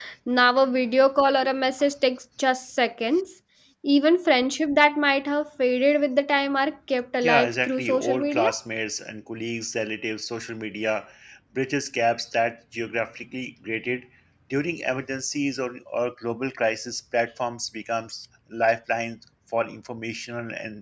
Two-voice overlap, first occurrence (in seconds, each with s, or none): 7.2 s